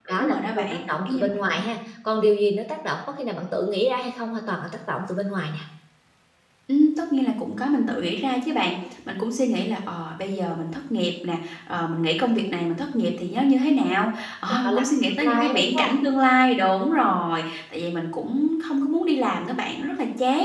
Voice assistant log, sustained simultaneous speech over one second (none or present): present